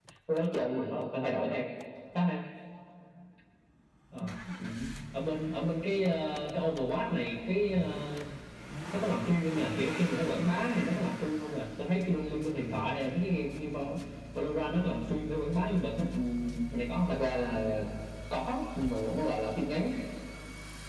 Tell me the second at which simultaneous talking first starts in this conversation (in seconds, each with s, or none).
none